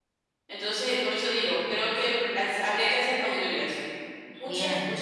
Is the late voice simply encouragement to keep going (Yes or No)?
Yes